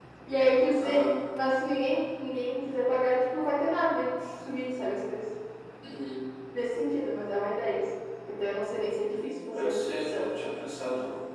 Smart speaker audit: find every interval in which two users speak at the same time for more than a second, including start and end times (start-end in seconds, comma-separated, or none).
9.0-10.4